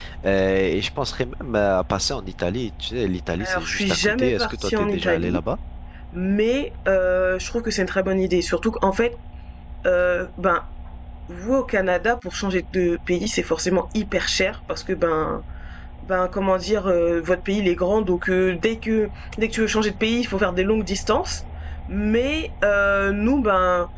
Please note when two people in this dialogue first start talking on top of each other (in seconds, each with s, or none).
3.4 s